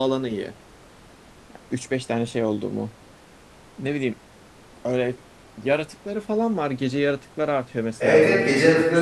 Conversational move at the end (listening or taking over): taking over